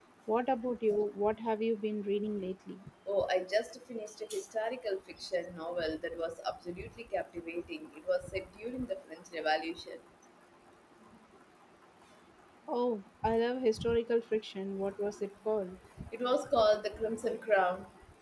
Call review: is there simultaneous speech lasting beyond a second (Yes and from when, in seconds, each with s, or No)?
No